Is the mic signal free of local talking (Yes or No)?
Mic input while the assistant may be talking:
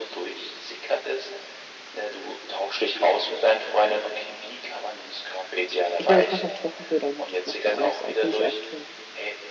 No